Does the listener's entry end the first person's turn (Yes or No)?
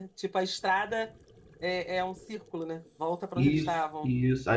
Yes